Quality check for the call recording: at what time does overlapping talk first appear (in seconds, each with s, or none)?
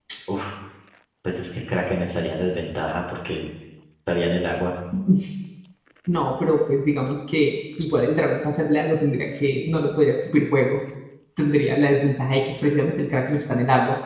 none